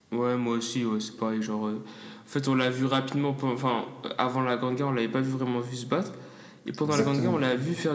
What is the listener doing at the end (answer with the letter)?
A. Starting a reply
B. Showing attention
B